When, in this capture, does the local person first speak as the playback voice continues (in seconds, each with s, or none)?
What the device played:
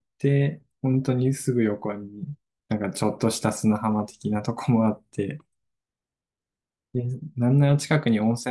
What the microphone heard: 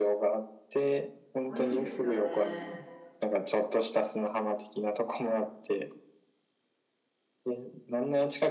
1.5 s